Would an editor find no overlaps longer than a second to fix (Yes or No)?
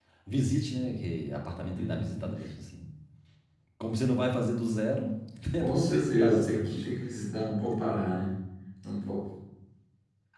No